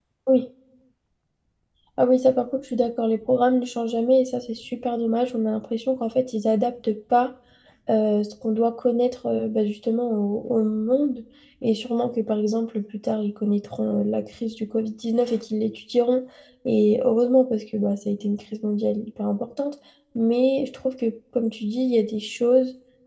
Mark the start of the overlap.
none

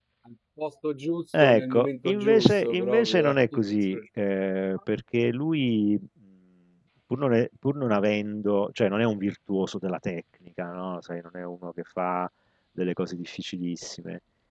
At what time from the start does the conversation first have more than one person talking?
1.3 s

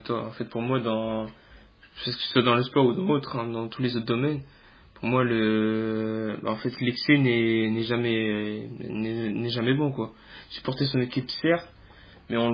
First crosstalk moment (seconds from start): none

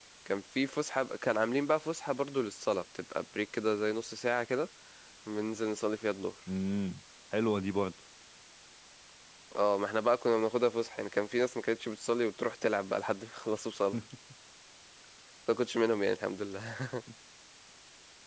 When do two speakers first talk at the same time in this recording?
none

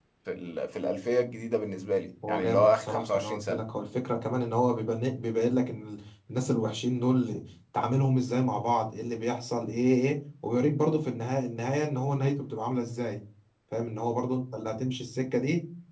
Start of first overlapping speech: 2.2 s

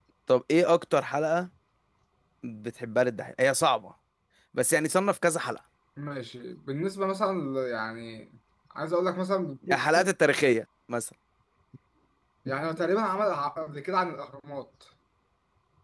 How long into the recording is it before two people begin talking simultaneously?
none

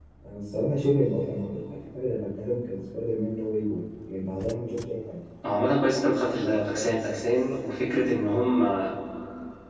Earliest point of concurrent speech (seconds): none

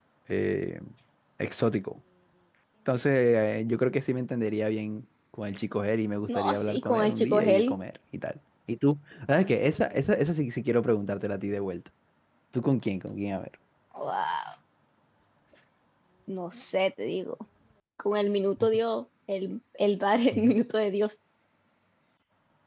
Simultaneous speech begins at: 6.3 s

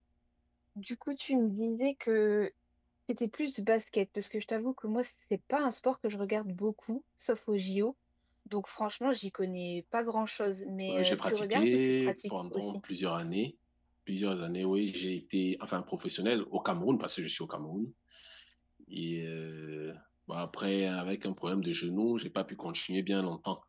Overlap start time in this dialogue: 10.9 s

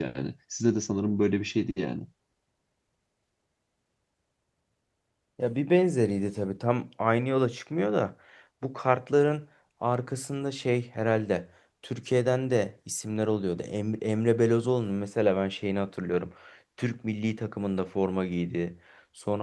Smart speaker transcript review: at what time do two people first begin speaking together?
none

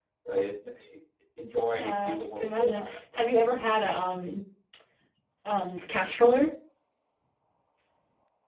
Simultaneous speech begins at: 1.7 s

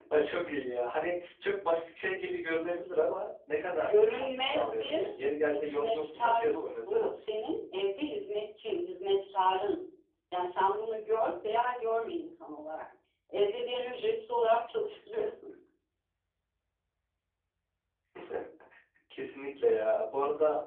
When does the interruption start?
3.8 s

